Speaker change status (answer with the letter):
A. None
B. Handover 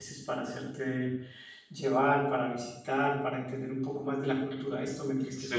A